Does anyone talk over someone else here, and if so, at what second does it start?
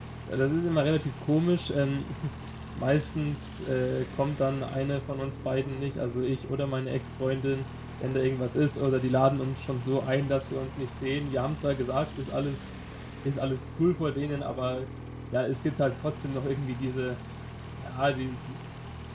none

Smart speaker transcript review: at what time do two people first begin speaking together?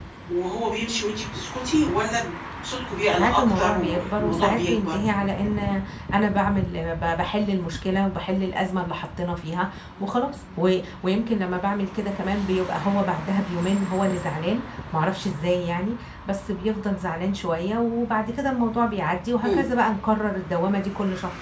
3.1 s

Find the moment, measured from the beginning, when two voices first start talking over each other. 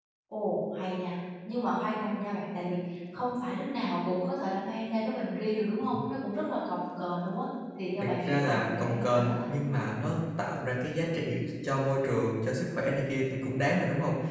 8.0 s

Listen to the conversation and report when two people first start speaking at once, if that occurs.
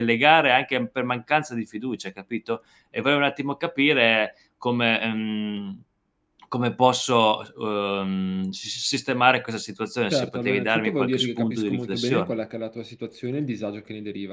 10.1 s

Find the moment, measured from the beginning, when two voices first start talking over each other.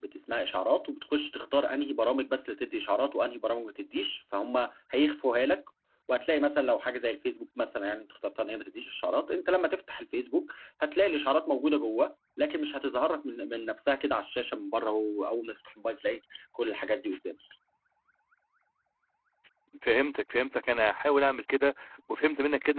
none

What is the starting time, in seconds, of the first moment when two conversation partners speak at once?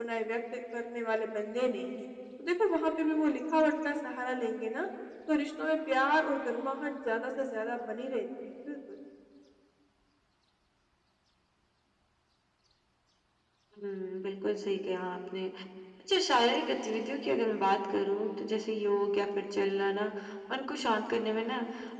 none

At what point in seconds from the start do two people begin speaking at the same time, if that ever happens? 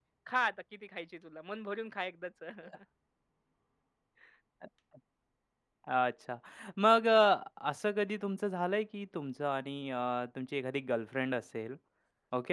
none

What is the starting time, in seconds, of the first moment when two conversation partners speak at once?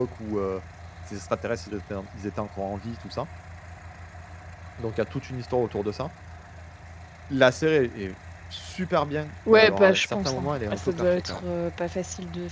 9.5 s

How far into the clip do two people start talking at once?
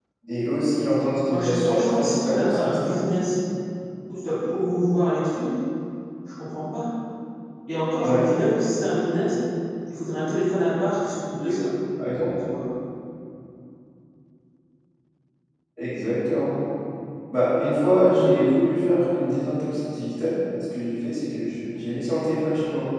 1.3 s

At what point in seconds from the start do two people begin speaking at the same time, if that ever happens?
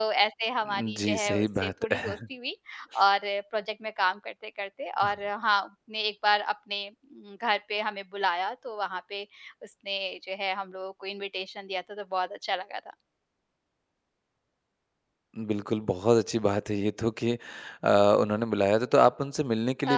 0.6 s

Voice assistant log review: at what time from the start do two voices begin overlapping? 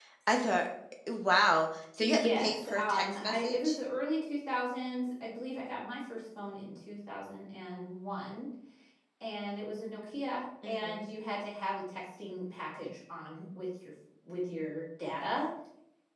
2.0 s

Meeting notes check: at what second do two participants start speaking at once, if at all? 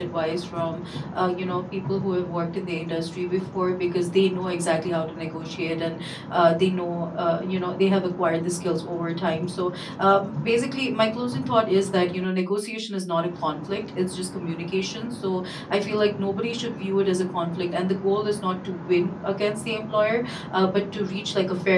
none

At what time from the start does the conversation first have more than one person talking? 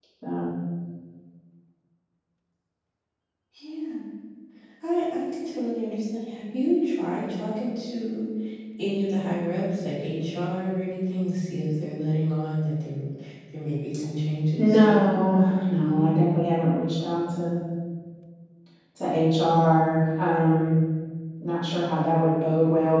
14.6 s

